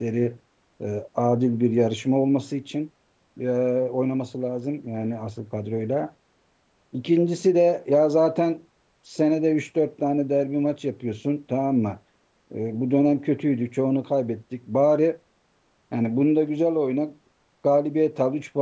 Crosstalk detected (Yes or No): No